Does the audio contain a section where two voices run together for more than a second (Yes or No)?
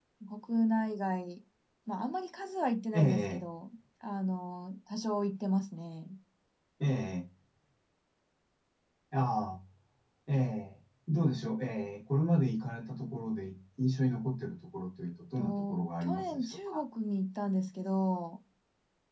Yes